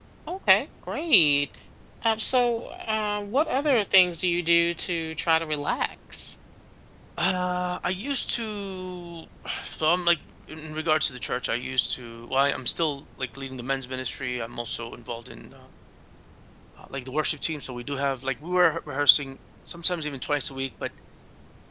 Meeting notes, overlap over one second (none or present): none